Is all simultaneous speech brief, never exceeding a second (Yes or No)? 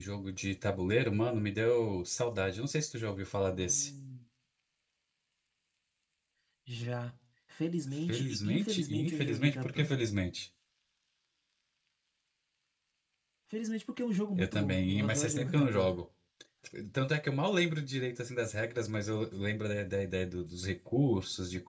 No